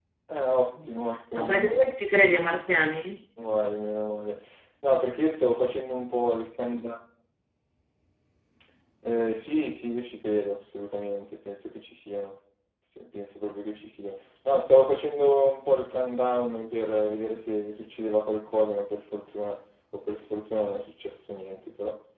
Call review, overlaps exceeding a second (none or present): none